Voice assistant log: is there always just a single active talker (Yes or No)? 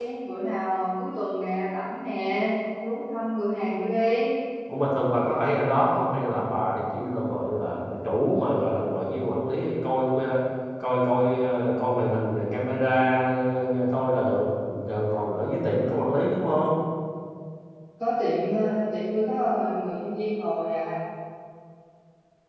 Yes